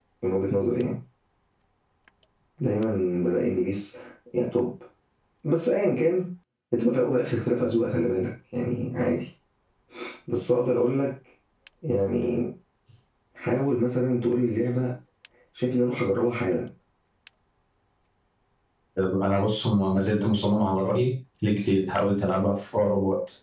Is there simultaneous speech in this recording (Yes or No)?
No